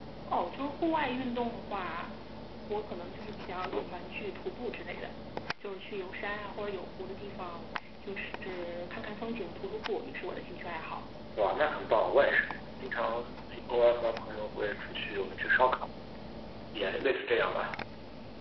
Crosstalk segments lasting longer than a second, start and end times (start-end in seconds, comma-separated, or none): none